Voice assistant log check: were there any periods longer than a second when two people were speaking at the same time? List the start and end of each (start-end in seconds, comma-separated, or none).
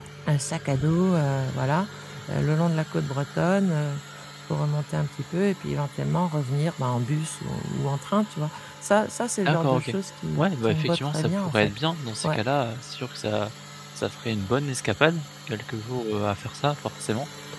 10.4-11.7